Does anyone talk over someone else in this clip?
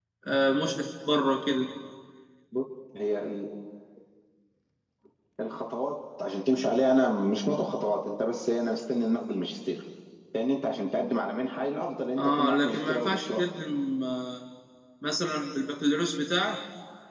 Yes, from 12.2 s

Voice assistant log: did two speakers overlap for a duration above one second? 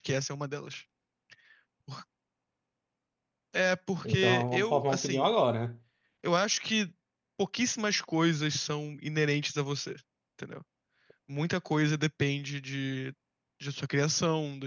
Yes, from 4.0 s

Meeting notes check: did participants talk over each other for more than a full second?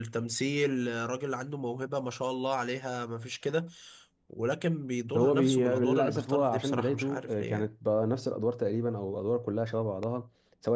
Yes, from 5.2 s

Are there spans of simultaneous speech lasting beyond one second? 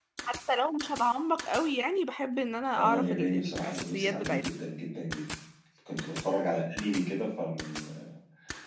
Yes, from 2.8 s

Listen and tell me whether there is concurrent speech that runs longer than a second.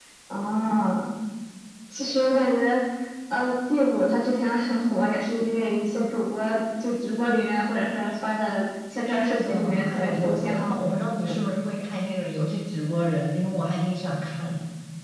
Yes, from 9.1 s

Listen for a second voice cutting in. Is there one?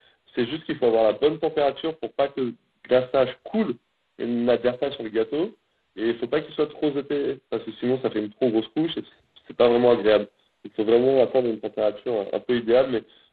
No

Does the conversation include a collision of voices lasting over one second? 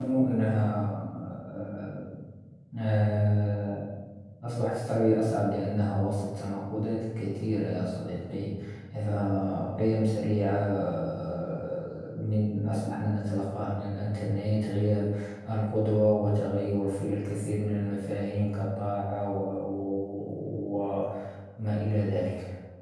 No

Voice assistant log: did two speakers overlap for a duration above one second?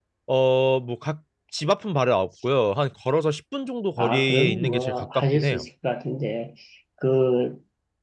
Yes, from 4.0 s

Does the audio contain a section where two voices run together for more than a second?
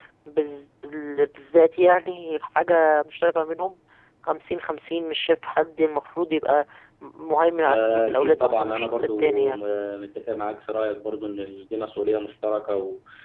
Yes, from 7.7 s

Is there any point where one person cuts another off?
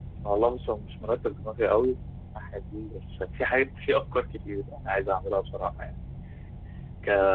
No

